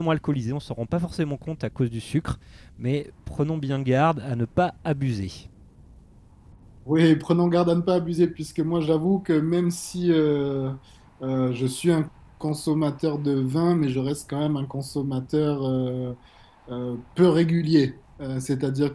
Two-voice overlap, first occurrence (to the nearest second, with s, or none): none